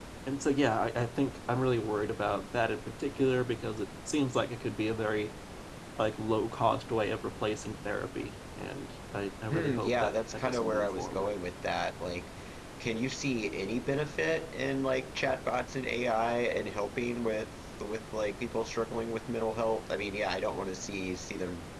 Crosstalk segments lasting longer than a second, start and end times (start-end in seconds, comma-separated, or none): 9.5-11.3